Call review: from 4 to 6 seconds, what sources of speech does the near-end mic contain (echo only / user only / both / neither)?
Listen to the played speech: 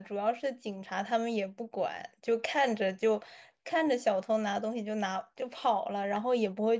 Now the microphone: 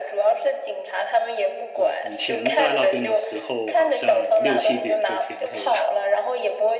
both